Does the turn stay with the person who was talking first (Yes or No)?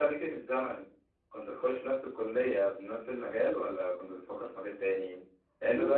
Yes